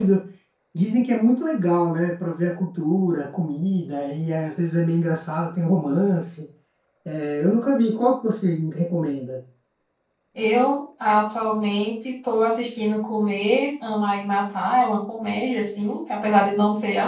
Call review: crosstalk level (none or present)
none